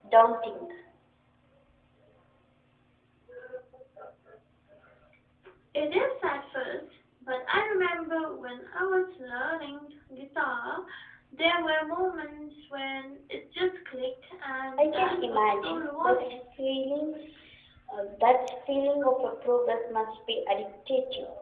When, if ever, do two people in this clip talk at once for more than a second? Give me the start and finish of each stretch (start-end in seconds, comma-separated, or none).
14.8-16.4